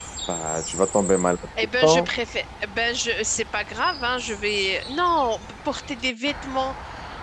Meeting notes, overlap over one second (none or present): none